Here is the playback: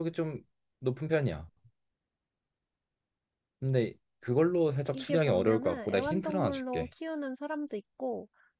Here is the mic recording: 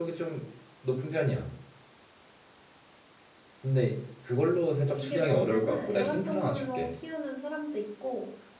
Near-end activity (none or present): none